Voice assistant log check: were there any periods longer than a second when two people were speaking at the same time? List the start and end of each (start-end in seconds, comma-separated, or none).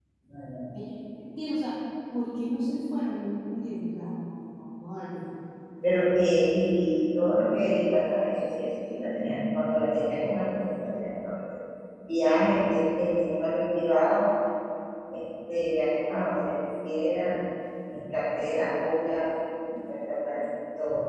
none